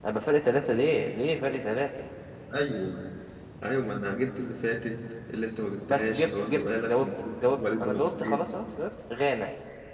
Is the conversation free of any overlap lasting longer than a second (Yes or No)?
No